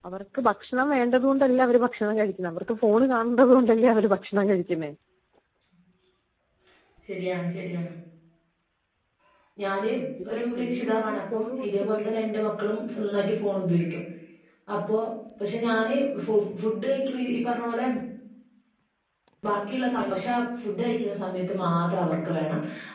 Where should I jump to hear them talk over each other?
10 s

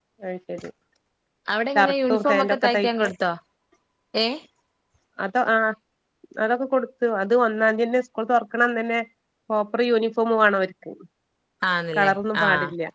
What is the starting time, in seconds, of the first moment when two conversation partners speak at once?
2 s

